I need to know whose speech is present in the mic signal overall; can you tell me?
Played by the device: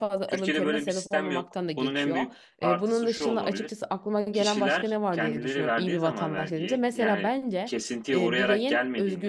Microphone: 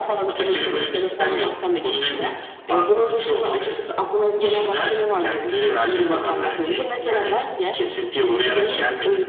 echo only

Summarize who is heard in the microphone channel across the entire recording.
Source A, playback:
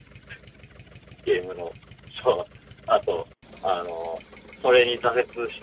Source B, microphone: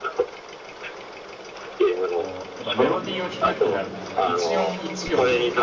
both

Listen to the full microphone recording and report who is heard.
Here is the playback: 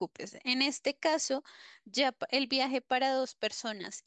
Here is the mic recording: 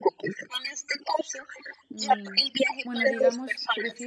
both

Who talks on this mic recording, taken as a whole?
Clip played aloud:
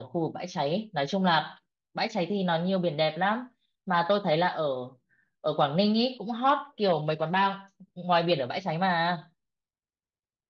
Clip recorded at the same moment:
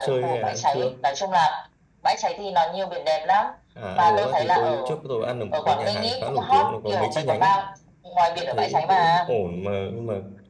both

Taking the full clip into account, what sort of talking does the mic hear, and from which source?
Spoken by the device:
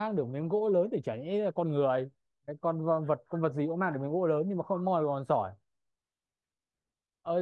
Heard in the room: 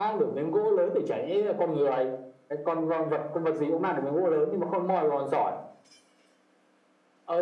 echo only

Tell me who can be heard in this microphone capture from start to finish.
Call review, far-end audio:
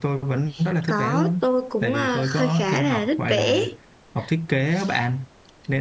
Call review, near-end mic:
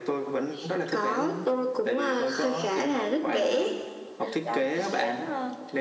both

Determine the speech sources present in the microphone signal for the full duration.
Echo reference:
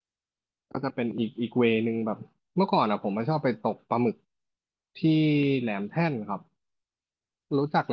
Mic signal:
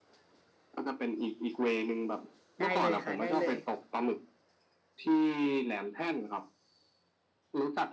both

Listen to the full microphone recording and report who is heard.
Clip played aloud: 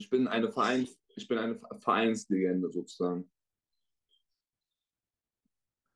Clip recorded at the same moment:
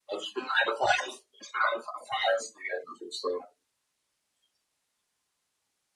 echo only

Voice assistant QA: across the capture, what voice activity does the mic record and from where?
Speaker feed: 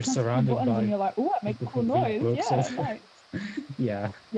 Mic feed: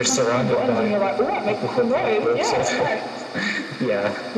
echo only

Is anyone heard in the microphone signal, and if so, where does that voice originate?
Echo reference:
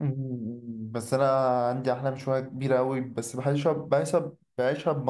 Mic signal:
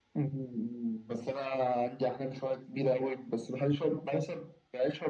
echo only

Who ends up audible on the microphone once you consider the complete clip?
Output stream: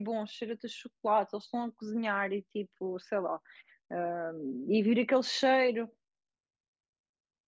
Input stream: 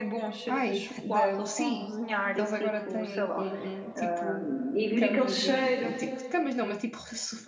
both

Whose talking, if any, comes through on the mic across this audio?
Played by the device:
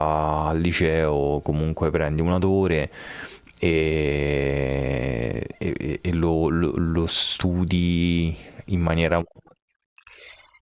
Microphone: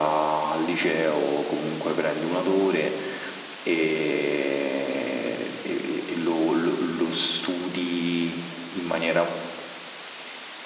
echo only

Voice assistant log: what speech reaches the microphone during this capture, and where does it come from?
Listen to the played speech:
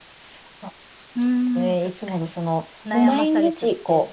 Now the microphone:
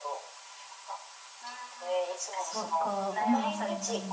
both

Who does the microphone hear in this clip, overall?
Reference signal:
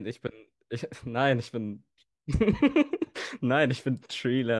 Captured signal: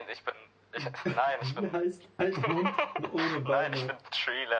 both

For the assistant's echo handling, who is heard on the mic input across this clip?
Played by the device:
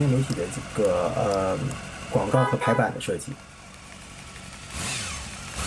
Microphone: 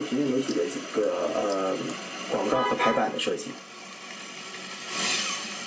echo only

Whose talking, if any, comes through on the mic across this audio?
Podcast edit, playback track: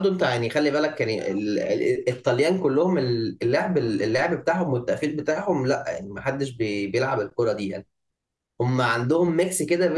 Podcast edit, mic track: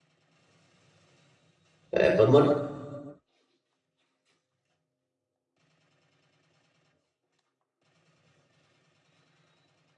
user only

